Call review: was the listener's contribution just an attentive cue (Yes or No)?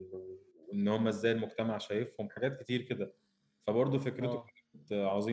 Yes